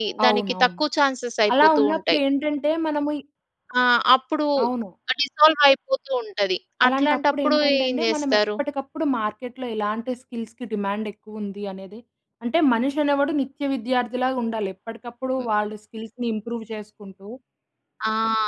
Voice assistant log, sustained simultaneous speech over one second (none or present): present